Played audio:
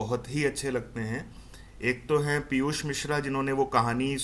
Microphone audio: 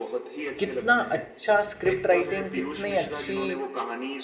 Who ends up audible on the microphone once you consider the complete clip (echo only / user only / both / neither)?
both